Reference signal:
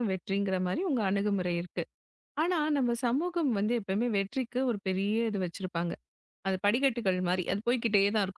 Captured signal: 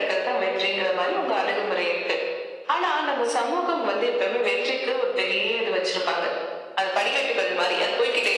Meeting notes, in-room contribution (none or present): none